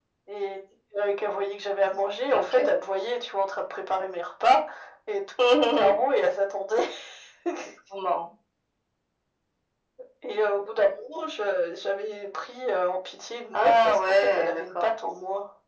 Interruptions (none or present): present